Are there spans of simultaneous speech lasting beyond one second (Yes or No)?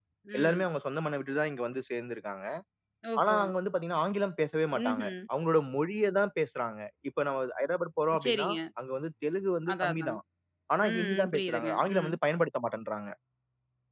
Yes